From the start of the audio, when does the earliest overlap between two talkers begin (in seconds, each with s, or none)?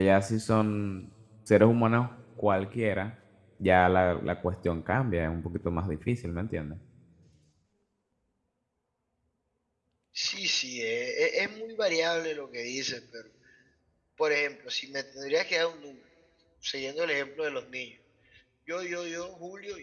none